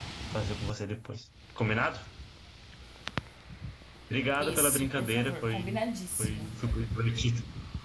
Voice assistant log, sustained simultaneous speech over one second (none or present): present